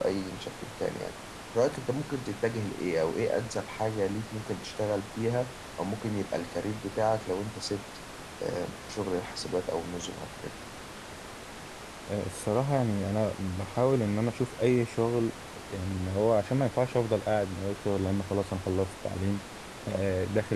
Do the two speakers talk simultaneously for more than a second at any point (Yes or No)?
No